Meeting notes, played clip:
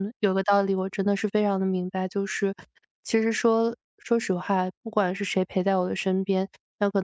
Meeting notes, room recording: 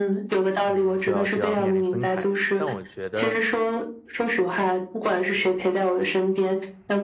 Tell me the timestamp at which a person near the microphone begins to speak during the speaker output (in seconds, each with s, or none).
0.6 s